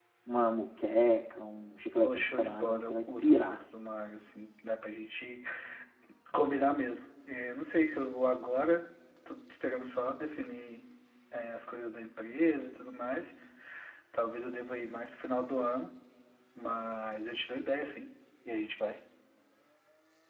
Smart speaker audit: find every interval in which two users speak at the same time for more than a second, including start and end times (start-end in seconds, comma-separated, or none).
2.0-3.6